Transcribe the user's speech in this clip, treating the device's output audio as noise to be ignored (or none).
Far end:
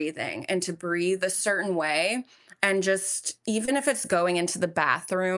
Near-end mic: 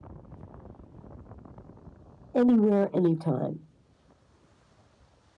anywhere, anytime.